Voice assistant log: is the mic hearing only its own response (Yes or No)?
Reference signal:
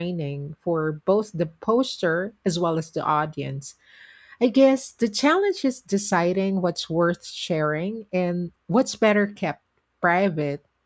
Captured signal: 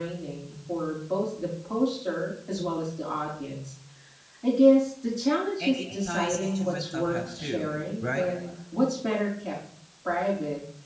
No